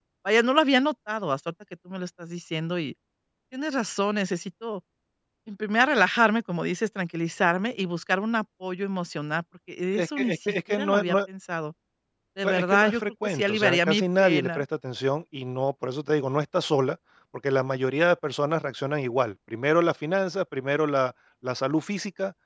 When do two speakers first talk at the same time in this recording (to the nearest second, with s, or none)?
10 s